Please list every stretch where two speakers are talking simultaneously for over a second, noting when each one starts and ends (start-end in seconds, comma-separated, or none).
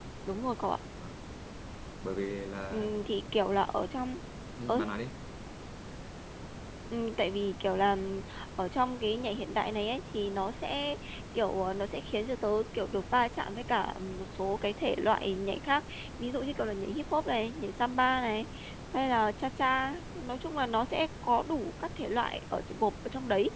none